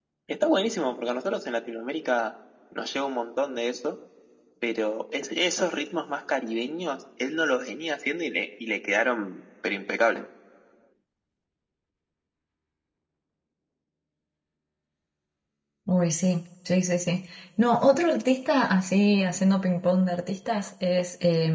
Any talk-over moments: No

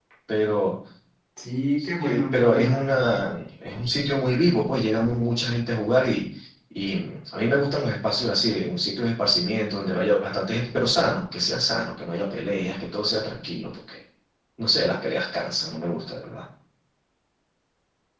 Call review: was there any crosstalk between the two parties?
Yes, from 1.8 s

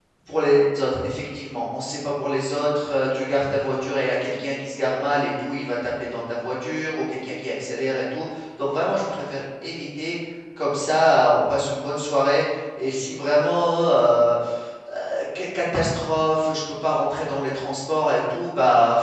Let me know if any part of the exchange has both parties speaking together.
No

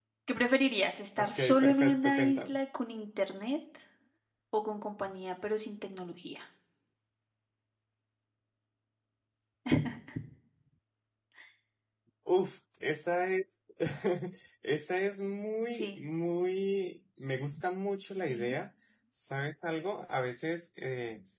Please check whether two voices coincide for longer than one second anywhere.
Yes, from 1.2 s

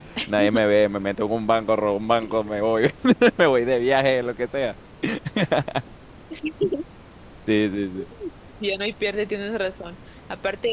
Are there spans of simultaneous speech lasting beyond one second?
No

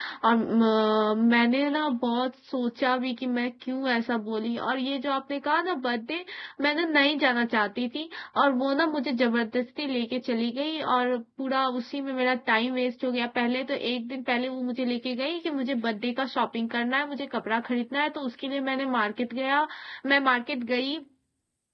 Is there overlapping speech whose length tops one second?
No

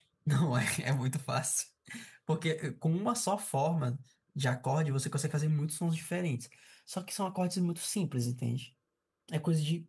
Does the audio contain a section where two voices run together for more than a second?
No

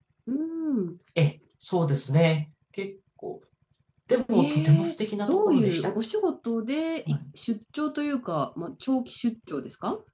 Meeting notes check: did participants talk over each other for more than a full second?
Yes, from 4.3 s

